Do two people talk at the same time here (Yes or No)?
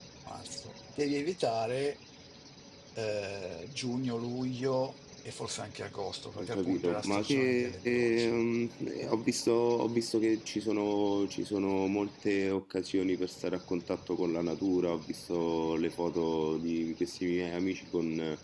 Yes